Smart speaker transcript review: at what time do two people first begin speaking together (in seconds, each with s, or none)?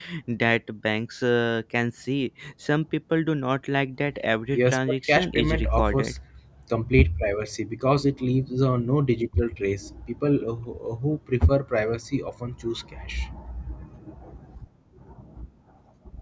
4.5 s